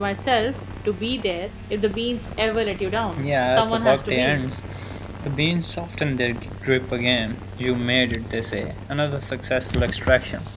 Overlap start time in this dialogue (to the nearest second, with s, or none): 3 s